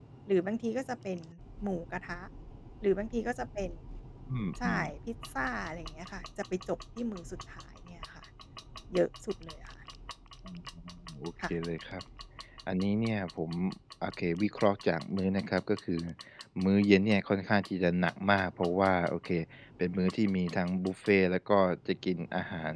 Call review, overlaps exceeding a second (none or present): none